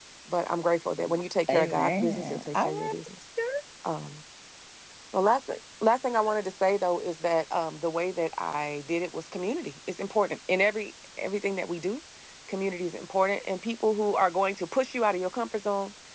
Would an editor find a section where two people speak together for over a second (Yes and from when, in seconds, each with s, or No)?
Yes, from 1.5 s